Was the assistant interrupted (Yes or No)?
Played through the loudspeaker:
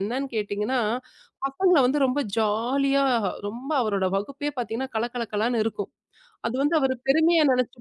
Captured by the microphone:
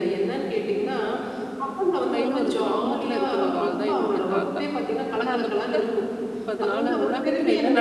Yes